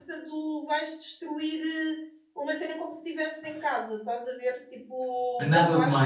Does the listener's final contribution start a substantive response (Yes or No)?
Yes